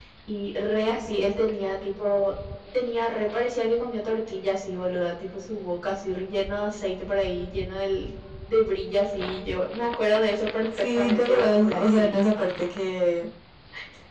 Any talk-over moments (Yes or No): Yes